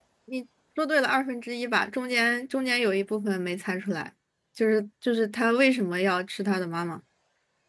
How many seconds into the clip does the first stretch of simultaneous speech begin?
none

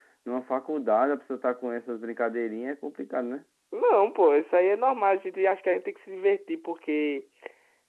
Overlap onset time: none

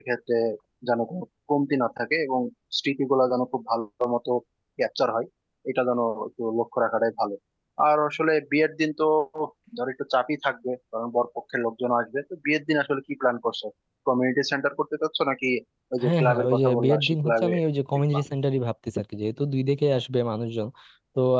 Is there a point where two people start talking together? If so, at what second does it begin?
16.0 s

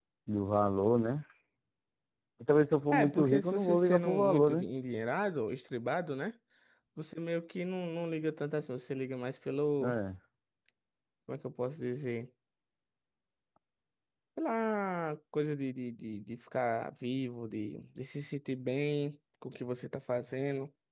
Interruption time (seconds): 2.9 s

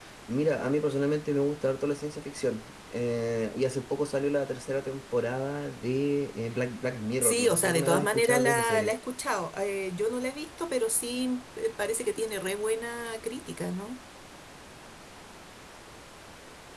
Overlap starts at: 7.2 s

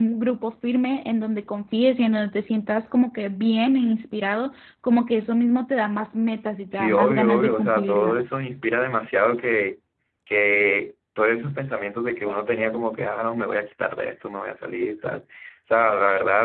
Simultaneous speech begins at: 6.7 s

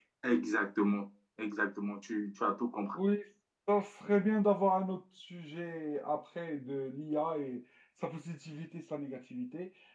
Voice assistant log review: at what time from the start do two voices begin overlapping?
none

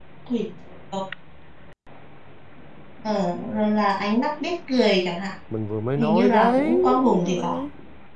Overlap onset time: 6.0 s

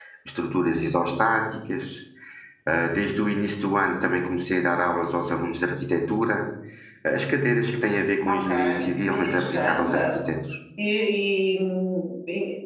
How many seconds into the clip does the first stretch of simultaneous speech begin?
8.3 s

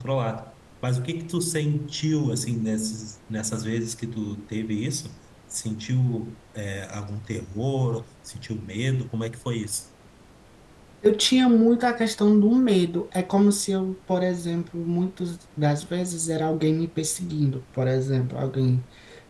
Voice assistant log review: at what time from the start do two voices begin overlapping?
none

